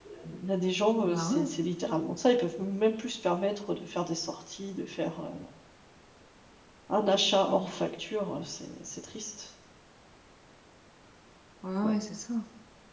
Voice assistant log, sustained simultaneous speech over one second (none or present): none